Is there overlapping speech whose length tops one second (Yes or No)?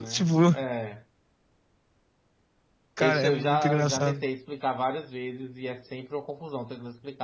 Yes